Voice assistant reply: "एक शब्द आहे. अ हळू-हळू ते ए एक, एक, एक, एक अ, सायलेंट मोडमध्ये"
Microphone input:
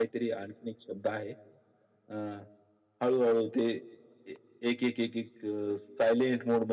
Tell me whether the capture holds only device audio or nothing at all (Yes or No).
Yes